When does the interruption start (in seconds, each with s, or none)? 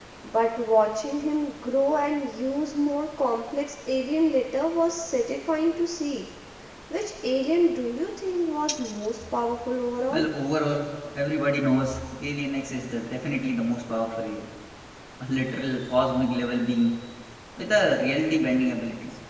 none